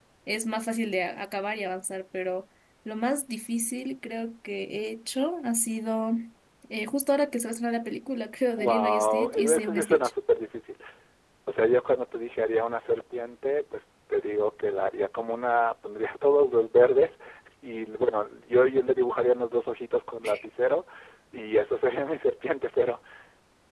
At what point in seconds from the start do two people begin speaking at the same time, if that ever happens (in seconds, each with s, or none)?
8.6 s